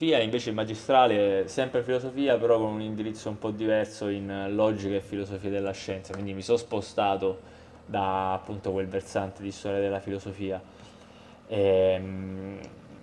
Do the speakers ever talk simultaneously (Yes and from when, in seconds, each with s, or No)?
No